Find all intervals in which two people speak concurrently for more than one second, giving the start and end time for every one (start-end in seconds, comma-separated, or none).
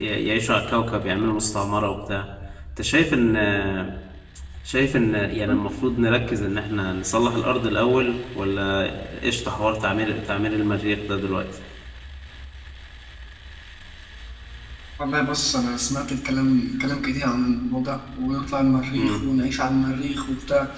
none